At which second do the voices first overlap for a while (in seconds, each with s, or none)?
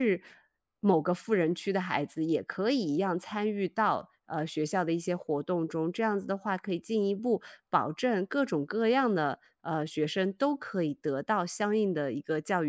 none